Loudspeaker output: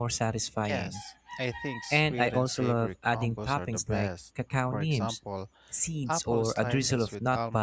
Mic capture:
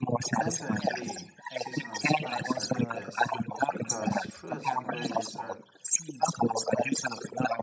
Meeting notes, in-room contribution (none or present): present